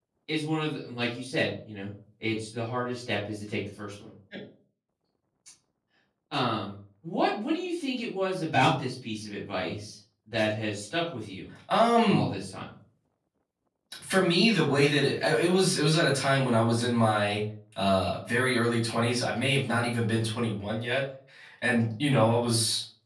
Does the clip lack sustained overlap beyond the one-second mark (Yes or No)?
Yes